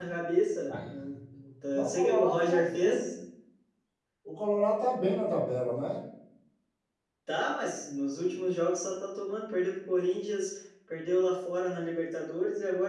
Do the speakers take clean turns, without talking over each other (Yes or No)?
No